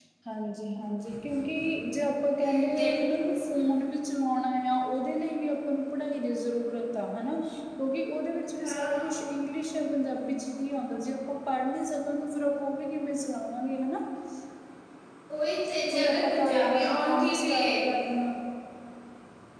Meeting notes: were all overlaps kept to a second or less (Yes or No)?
No